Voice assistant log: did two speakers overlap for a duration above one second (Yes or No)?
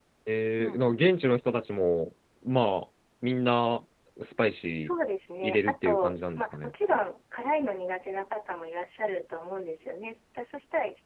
Yes